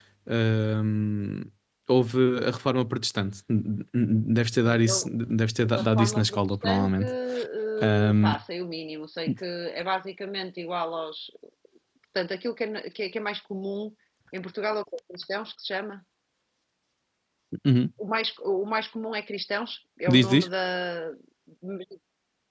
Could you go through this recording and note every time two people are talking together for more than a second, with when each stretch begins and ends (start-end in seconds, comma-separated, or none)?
5.7-7.1